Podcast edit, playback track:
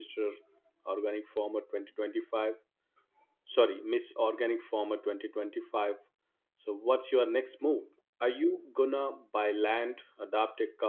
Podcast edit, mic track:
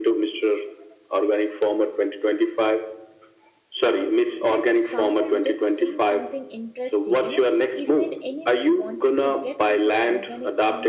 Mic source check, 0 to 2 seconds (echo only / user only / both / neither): echo only